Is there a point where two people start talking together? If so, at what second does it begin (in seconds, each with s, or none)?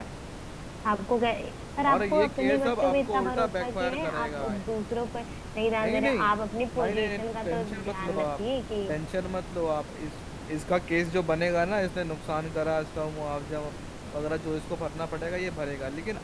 1.9 s